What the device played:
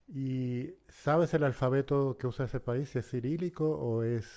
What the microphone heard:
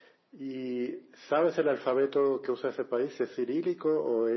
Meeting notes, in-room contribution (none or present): none